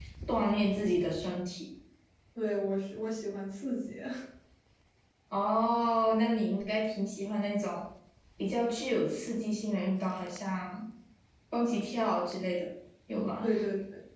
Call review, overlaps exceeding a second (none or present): none